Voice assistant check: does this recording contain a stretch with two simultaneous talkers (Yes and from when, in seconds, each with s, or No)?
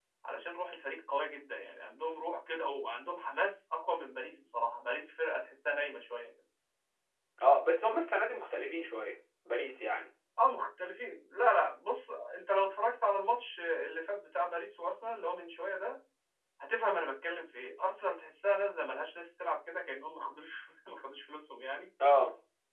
No